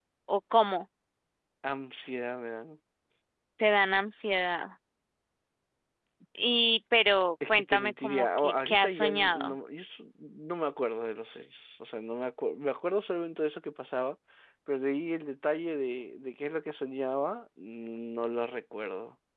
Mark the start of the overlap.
7.4 s

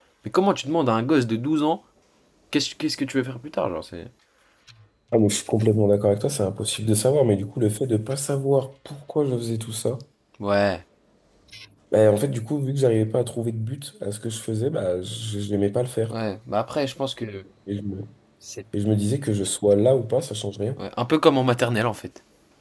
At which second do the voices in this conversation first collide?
none

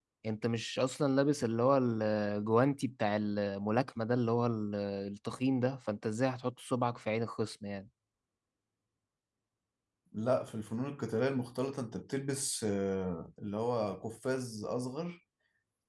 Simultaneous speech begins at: none

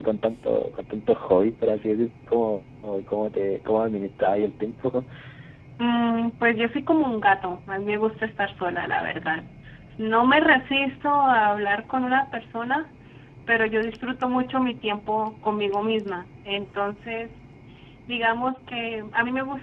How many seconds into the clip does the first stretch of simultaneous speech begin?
none

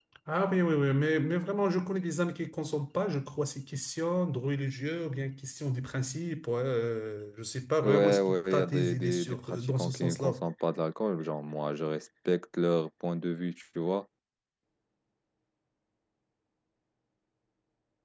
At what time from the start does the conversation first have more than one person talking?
7.8 s

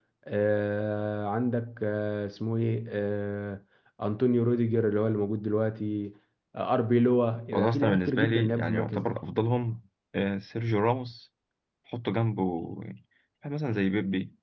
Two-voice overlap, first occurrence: 7.5 s

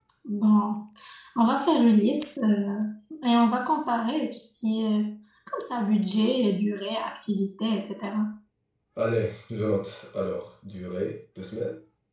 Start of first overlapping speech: none

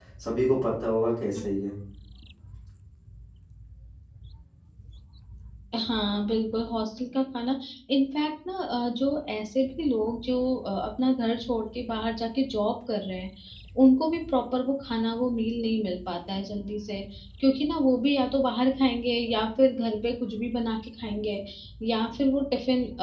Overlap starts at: none

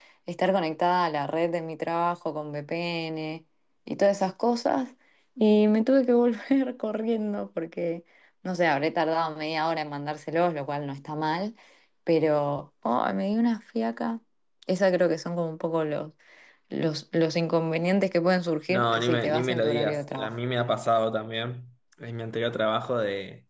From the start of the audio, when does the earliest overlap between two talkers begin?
18.7 s

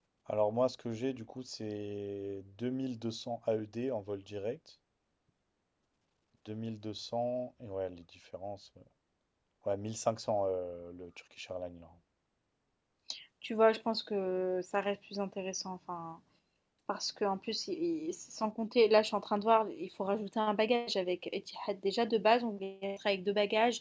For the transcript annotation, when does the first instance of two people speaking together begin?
none

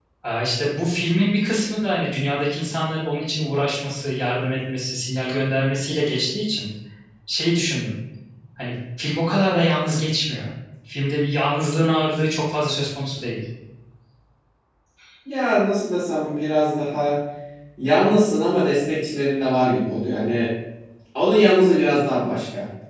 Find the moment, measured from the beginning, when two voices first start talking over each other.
none

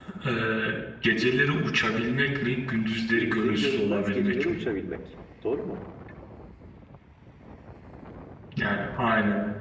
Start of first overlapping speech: 3.1 s

